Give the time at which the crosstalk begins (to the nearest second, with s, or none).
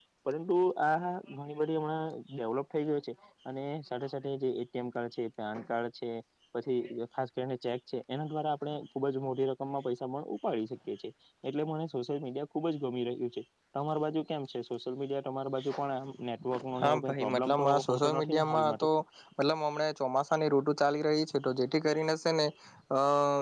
17 s